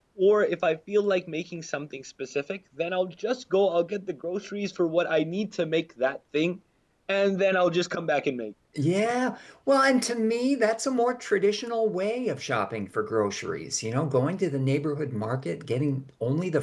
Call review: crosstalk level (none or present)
none